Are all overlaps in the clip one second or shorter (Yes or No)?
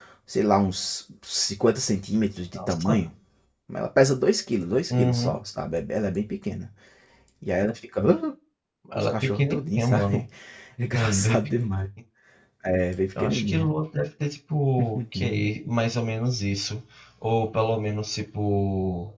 No